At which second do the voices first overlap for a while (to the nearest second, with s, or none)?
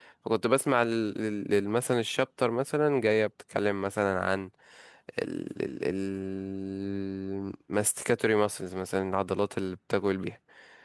none